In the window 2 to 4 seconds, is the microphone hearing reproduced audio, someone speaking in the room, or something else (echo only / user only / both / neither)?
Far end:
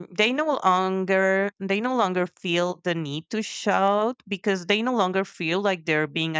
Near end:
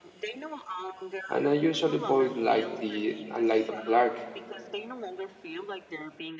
both